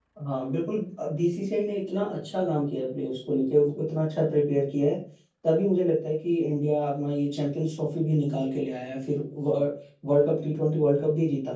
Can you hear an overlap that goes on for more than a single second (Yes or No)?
No